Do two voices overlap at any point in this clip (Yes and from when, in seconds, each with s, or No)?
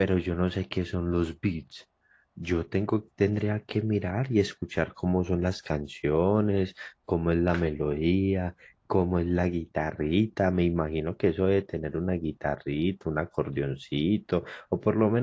No